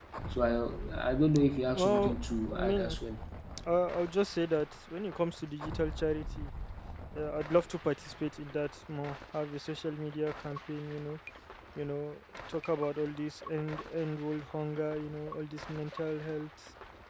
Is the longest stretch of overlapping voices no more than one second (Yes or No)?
No